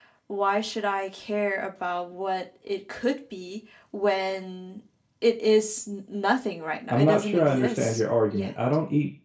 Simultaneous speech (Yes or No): Yes